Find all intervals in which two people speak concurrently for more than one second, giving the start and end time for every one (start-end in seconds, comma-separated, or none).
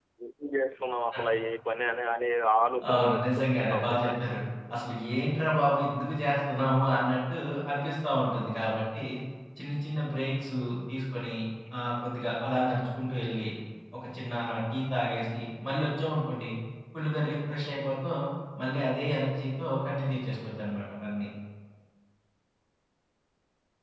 2.9-4.2